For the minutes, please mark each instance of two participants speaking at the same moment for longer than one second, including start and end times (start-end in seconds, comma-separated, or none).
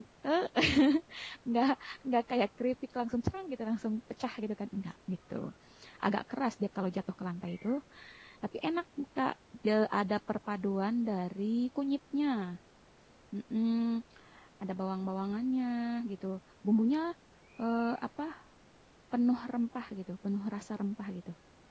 none